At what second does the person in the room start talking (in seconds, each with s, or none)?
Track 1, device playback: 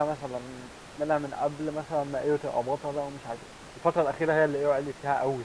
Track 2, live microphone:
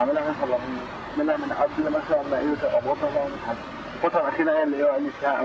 none